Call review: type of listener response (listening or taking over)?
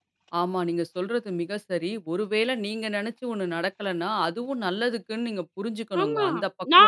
taking over